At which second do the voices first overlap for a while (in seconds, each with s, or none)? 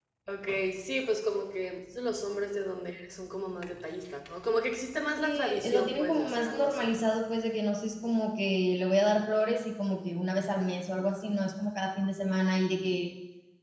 5.2 s